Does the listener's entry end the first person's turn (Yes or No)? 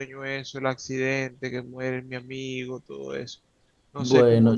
Yes